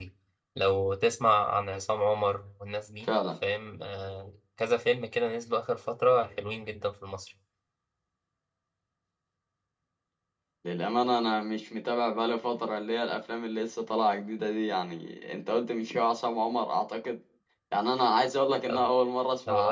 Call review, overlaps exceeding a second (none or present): none